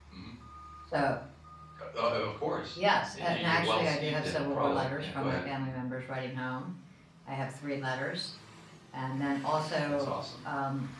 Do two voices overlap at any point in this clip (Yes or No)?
Yes